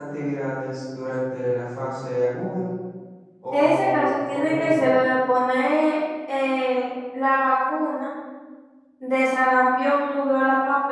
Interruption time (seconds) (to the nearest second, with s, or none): 4 s